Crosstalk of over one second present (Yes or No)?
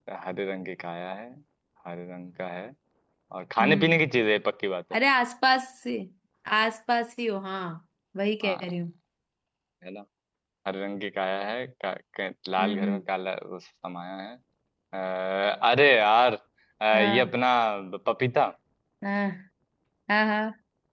No